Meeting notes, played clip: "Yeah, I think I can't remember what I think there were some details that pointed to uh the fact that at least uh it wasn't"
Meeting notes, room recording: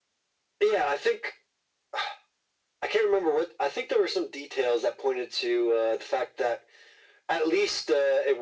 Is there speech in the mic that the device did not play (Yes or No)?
No